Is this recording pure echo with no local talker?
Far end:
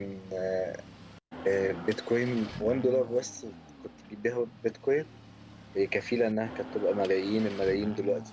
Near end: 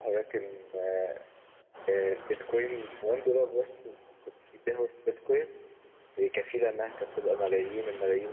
Yes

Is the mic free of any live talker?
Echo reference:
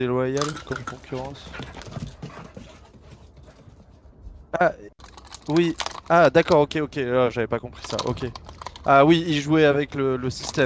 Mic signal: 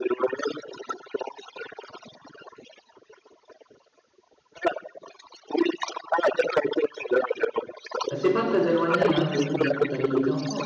No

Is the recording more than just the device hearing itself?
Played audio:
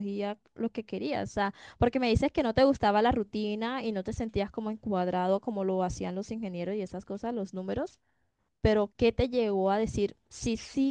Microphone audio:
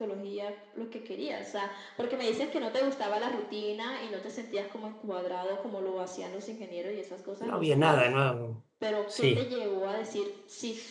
Yes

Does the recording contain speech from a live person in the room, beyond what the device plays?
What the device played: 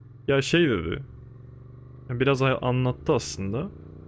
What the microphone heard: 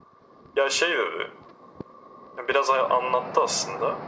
No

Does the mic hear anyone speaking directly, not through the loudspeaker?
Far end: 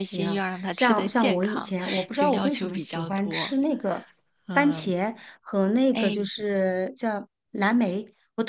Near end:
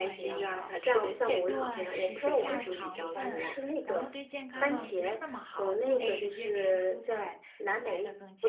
Yes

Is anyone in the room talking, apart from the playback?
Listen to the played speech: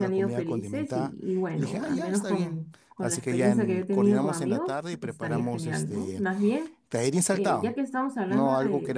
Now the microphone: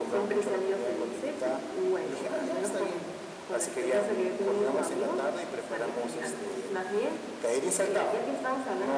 No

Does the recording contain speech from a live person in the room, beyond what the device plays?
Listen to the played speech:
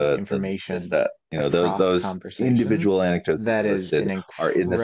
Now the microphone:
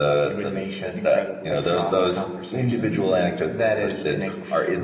Yes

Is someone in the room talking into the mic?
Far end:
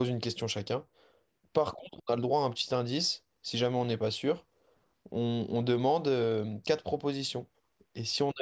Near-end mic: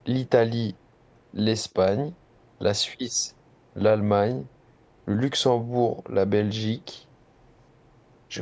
Yes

